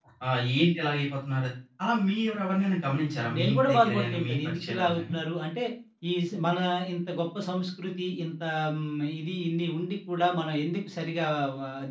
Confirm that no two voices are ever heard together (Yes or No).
No